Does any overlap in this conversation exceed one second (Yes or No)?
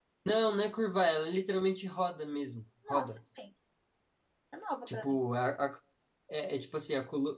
No